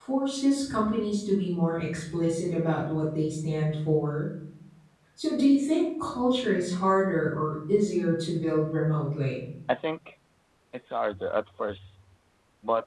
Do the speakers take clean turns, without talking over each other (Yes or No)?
Yes